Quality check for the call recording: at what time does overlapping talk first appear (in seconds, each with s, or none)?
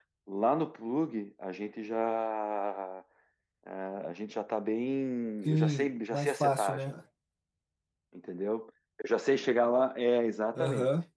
5.5 s